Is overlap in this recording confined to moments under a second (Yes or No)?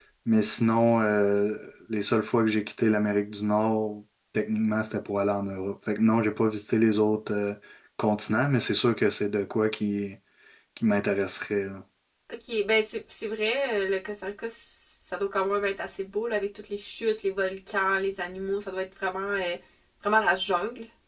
Yes